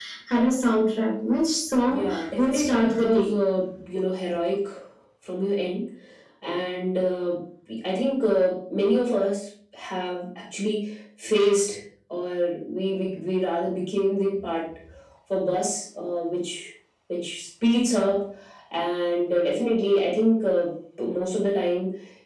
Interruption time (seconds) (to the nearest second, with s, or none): 2 s